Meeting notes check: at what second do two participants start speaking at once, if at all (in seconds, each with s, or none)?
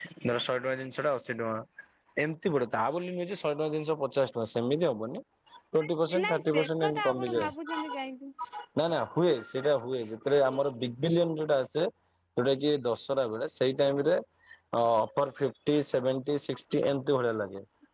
6.1 s